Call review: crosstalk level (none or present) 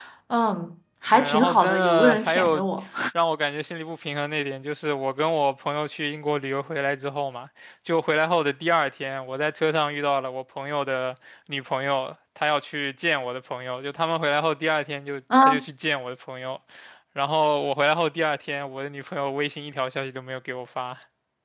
present